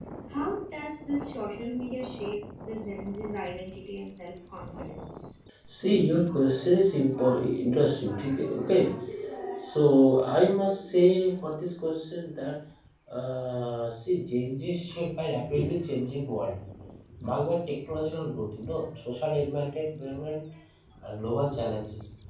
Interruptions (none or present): none